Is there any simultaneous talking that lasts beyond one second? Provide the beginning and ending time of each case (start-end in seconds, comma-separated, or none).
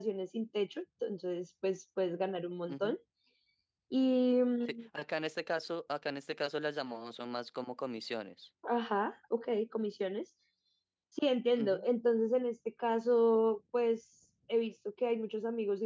none